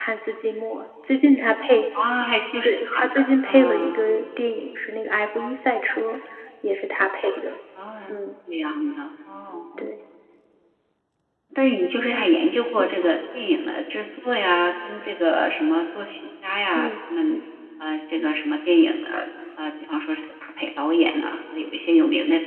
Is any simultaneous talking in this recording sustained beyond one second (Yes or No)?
Yes